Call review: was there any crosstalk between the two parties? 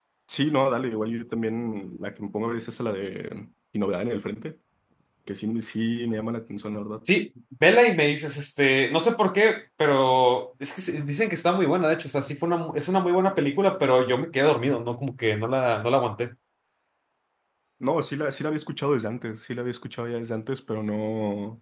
No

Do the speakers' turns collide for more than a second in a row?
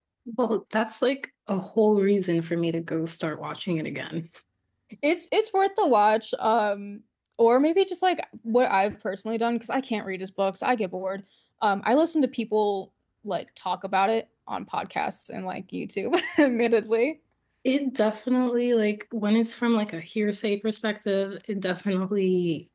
No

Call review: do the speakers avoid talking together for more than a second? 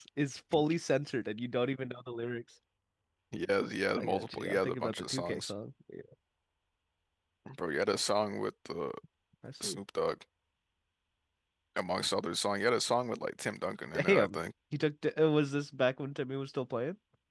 No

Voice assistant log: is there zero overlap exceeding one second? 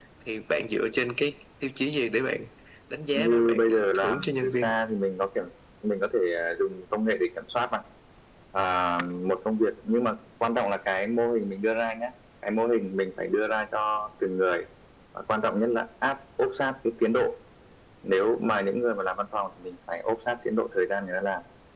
No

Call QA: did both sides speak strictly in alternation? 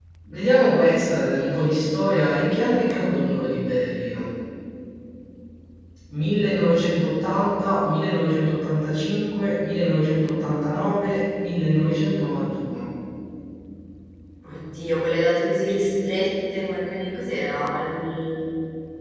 Yes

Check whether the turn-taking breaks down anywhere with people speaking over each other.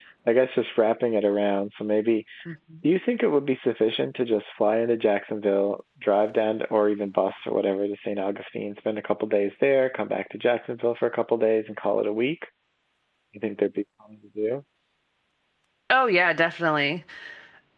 No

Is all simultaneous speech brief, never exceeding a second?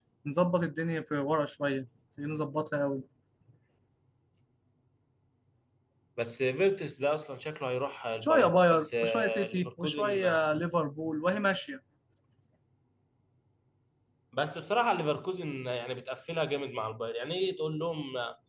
No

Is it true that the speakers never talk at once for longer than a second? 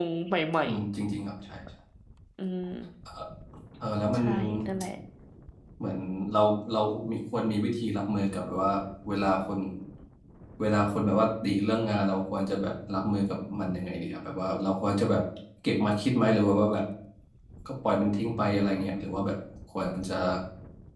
Yes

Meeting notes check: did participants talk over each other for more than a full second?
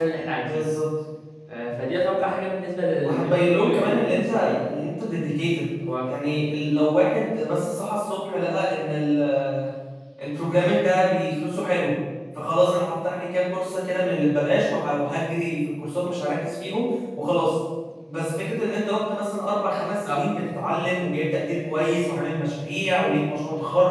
Yes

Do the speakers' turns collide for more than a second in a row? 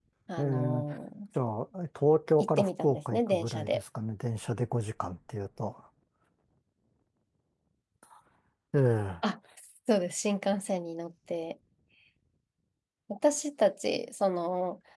Yes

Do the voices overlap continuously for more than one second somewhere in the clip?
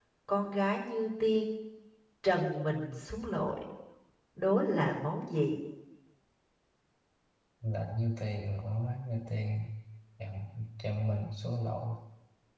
No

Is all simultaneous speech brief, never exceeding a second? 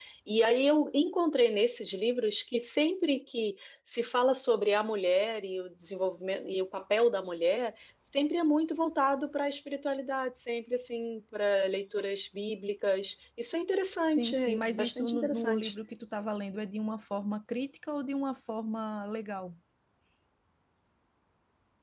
No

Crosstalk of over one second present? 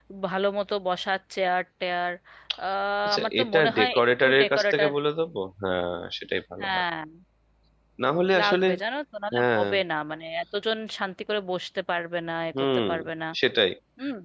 Yes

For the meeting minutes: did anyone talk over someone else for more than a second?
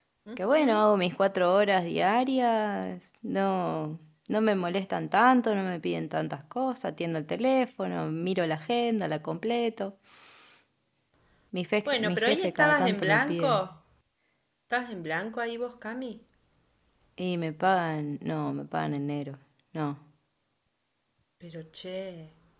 Yes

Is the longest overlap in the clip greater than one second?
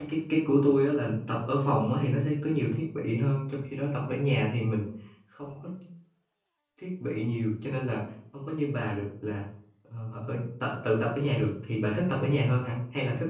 No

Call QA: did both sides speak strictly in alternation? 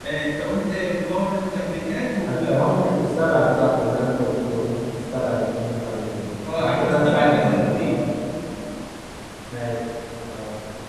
No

